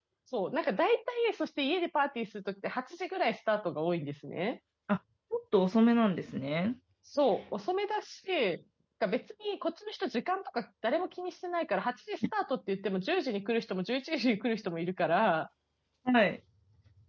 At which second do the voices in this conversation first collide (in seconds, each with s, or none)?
none